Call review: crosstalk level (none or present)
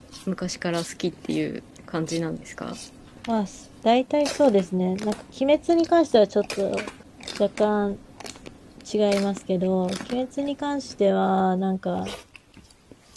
none